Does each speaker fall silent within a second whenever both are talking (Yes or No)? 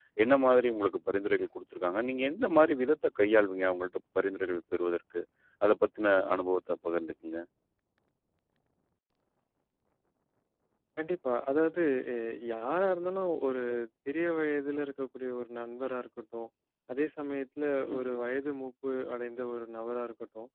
Yes